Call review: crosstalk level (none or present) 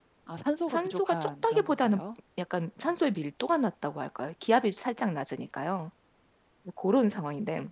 present